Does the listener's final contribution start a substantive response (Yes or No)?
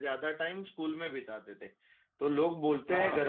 No